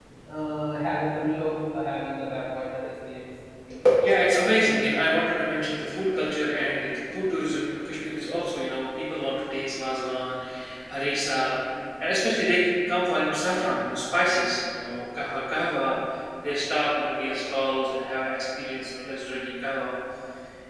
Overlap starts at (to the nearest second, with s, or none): none